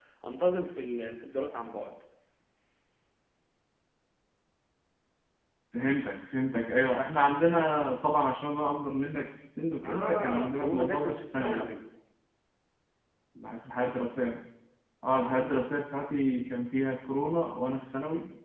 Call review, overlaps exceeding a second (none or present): present